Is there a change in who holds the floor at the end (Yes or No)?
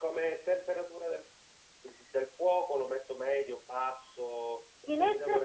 Yes